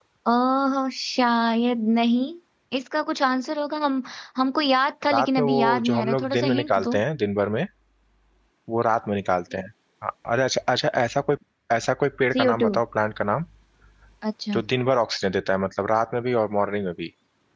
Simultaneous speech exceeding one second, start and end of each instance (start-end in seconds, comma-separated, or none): 5.1-7.0